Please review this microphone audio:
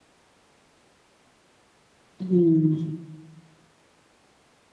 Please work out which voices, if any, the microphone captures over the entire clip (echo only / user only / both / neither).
user only